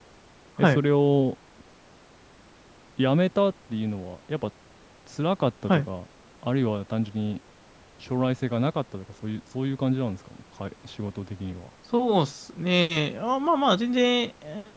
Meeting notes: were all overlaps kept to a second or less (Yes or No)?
Yes